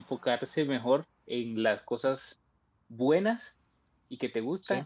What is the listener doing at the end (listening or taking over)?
listening